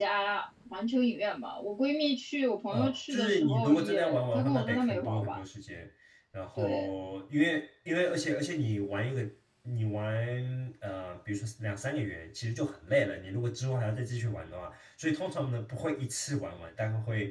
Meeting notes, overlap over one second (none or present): present